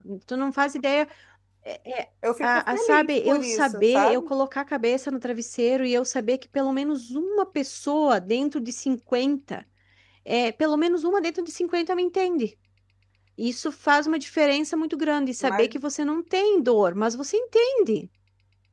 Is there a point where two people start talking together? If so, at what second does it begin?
2 s

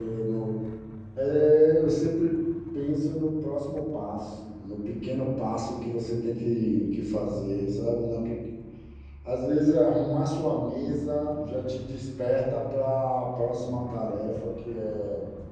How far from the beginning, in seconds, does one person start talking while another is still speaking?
none

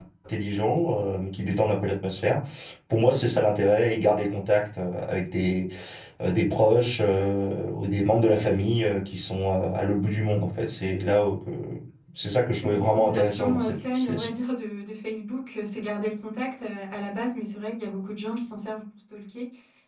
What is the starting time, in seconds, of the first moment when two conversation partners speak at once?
13 s

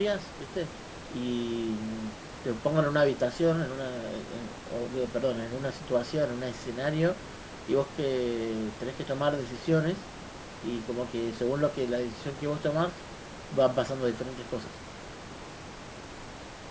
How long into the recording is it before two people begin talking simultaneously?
none

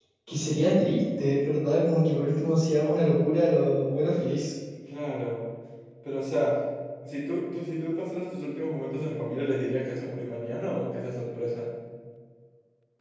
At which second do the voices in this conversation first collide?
none

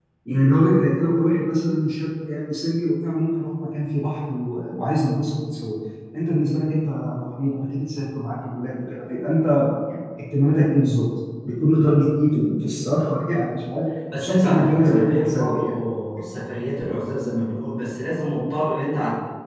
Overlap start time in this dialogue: 14 s

